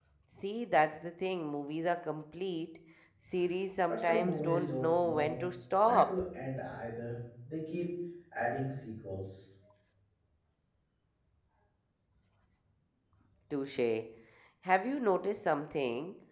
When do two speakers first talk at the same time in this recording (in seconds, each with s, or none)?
3.9 s